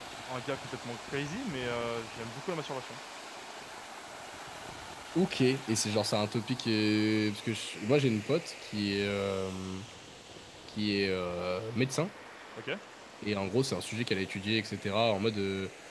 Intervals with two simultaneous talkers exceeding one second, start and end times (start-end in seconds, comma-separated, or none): none